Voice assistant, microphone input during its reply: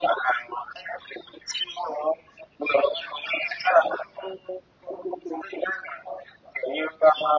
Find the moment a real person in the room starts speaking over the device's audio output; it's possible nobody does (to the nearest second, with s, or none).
none